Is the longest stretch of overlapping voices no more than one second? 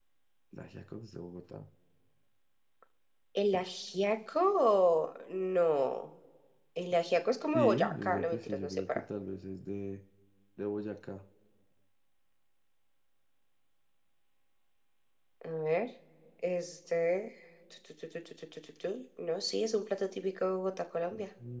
No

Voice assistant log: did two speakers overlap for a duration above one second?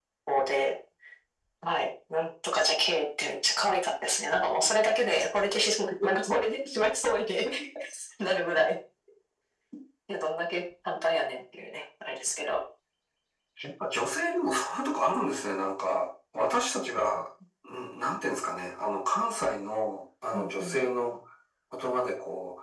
No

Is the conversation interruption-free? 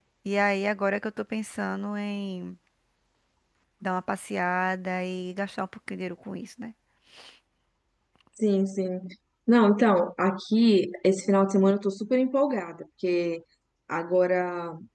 Yes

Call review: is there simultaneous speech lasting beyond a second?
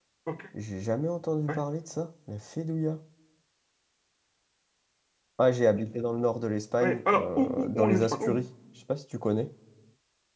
Yes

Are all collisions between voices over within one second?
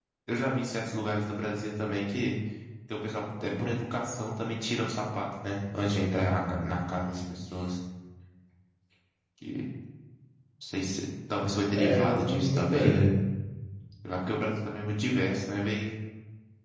No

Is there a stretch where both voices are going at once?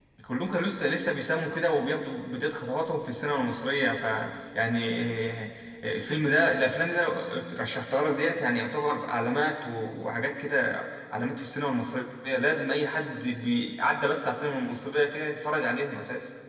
No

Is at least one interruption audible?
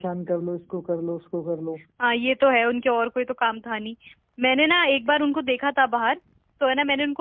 No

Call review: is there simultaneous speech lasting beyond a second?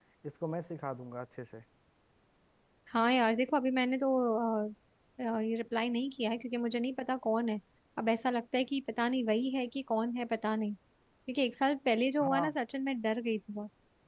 No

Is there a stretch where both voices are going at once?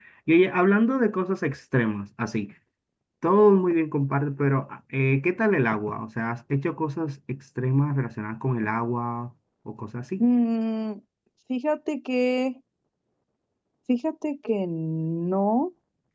No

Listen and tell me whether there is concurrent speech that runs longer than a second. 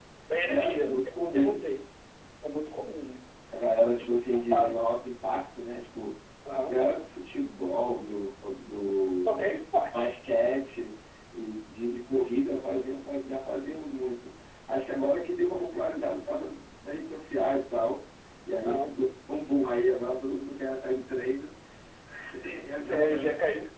Yes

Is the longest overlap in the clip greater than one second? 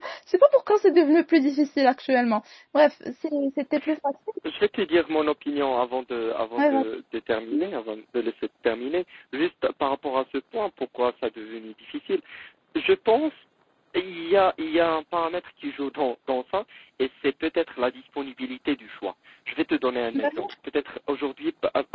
No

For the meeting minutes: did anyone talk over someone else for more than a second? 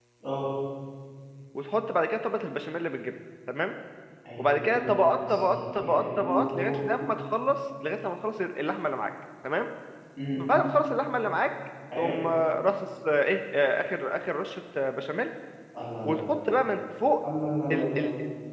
Yes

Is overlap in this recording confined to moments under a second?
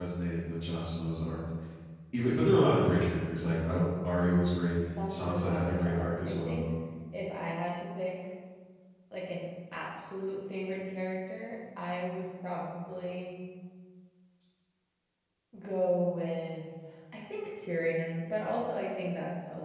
No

